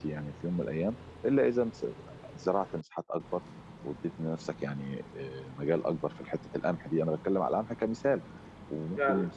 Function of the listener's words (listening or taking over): listening